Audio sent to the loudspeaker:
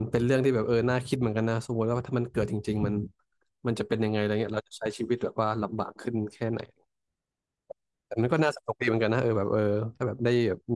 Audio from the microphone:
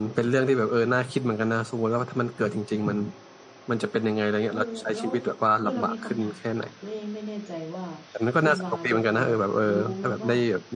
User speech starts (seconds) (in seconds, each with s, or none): 4.5 s